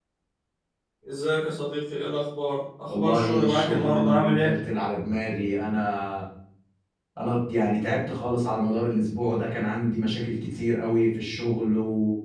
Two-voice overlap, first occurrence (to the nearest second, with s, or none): 3 s